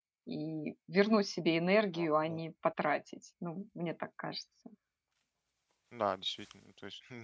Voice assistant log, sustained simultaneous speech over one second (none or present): none